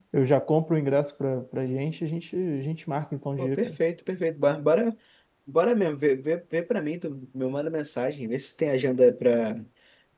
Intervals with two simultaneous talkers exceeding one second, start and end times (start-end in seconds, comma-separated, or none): none